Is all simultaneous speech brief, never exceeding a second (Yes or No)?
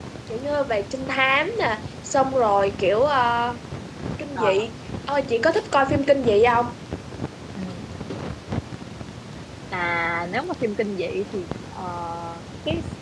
Yes